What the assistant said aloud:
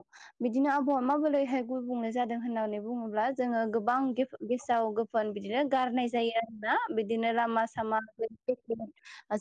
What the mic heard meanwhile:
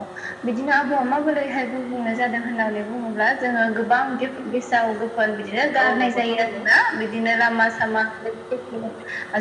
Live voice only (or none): औ नंगौ थारैनो